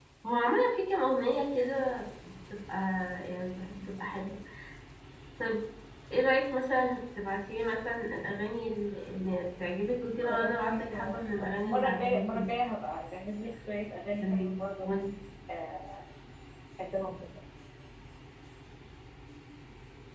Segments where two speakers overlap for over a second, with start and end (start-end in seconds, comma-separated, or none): 10.2-12.4